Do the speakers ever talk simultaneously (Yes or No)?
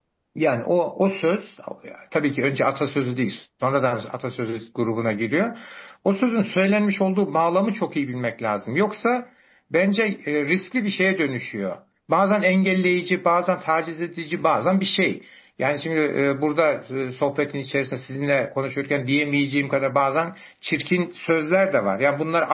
No